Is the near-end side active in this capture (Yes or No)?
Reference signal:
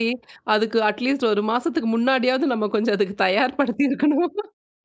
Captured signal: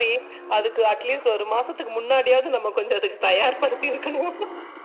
No